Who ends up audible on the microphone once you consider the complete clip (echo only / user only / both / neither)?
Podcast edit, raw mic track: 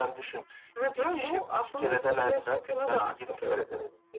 echo only